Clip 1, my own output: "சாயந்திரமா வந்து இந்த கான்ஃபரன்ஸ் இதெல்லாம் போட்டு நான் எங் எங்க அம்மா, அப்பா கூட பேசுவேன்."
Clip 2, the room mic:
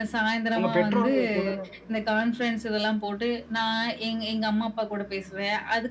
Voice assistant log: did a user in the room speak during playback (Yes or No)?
Yes